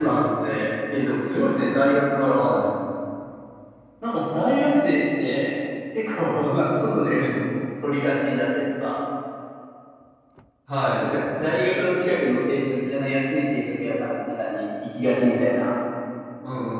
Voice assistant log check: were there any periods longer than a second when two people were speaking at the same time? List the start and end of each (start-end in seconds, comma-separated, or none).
none